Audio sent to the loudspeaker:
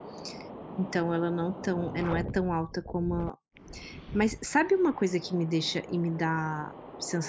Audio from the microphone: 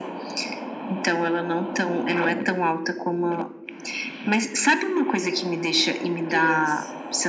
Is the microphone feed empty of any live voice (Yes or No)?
No